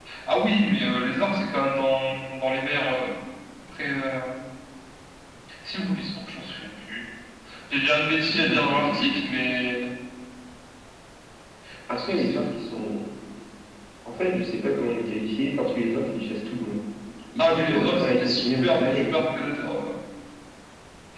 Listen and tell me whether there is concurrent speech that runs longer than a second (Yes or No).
Yes